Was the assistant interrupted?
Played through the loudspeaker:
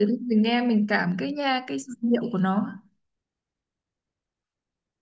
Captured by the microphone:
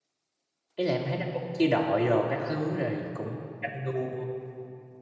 Yes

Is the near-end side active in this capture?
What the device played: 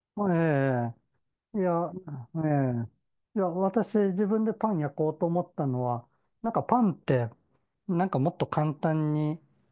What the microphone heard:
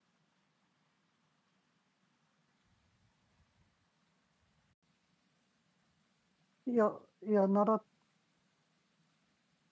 Yes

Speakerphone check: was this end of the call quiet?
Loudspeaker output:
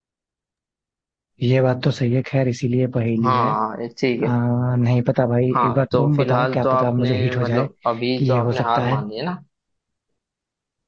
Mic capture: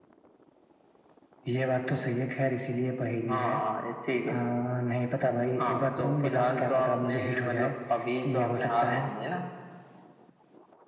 Yes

